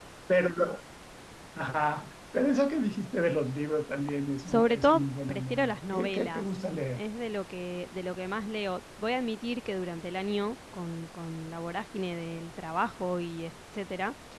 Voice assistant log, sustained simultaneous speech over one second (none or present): present